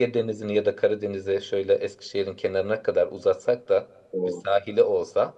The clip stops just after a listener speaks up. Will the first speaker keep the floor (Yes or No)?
Yes